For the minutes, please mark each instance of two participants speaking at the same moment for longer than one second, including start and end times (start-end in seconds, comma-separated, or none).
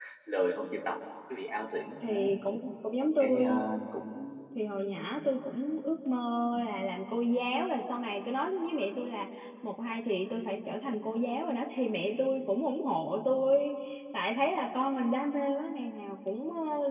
none